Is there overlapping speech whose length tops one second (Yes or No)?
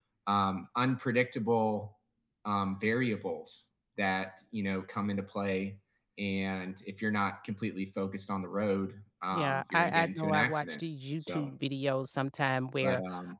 Yes